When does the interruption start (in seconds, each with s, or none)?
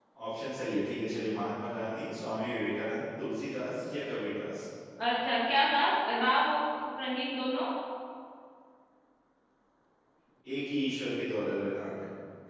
none